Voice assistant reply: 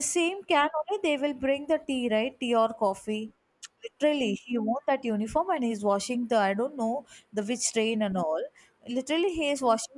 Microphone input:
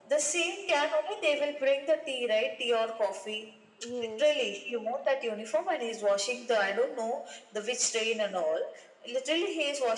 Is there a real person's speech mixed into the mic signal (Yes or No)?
Yes